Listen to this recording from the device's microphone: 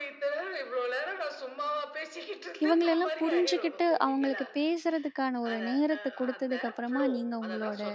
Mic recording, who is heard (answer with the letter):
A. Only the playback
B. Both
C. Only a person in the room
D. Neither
B